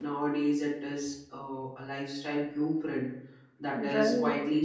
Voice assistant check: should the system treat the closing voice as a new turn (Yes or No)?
No